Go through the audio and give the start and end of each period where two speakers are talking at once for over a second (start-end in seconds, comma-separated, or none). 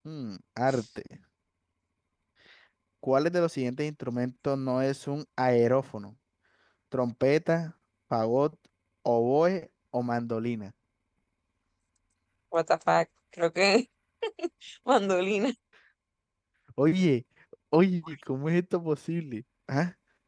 none